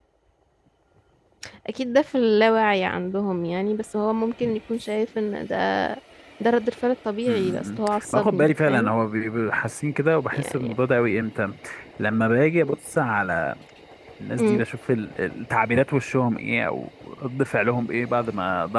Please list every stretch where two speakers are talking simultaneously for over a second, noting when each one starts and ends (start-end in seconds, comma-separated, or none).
7.3-8.9